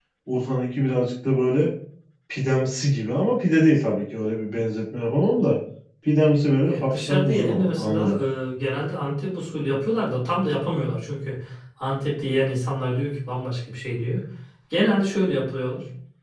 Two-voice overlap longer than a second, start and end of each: 6.7-8.2

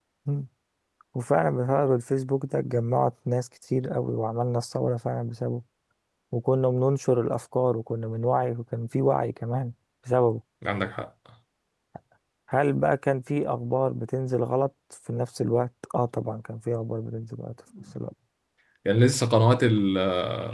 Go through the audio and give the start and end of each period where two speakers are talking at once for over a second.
none

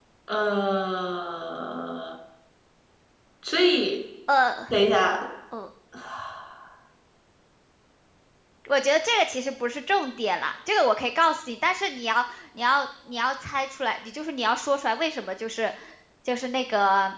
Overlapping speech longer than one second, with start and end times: none

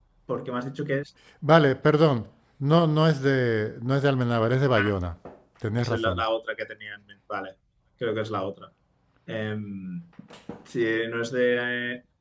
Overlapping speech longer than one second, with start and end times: none

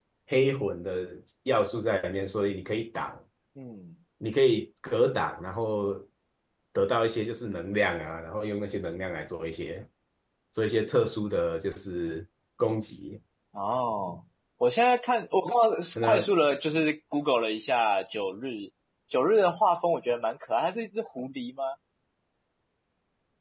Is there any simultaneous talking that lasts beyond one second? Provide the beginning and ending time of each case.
none

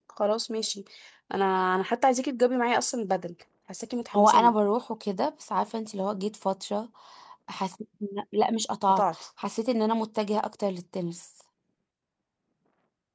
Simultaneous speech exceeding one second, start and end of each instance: none

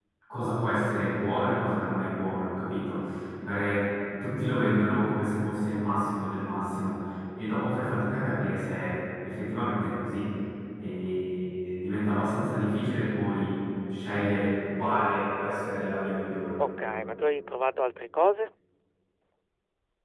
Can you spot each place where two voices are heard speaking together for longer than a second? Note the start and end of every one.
none

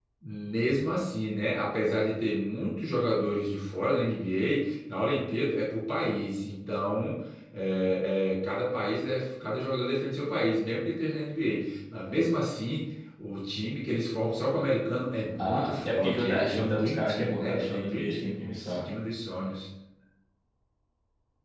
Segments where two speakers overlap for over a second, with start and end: 15.4-18.8

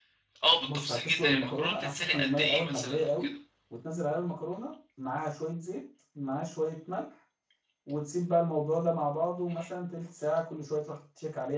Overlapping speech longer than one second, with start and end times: 0.6-3.3

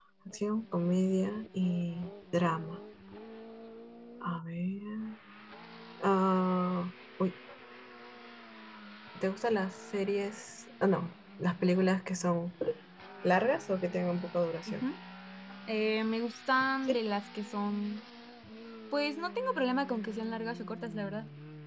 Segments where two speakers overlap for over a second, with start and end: none

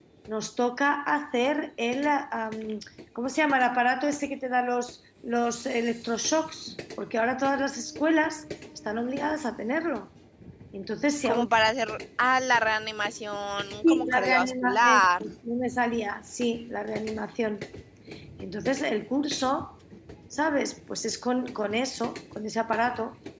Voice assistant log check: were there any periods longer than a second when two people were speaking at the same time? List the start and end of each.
13.8-15.2

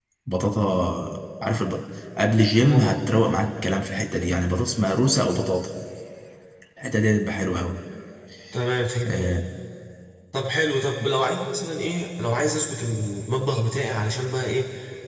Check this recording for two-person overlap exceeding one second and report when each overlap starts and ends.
none

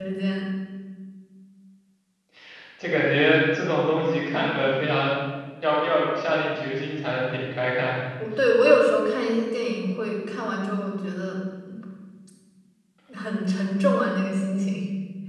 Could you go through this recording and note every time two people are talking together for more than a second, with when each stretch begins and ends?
none

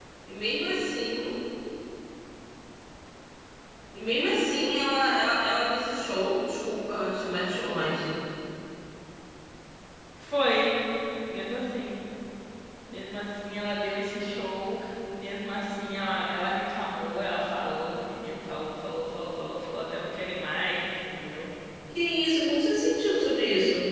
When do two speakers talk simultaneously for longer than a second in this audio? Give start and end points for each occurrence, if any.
none

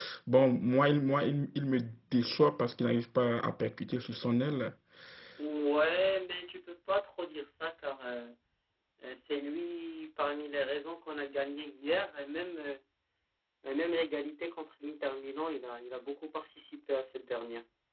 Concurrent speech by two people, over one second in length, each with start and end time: none

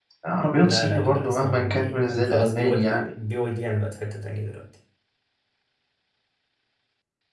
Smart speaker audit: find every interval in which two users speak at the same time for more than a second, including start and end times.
0.5-3.1

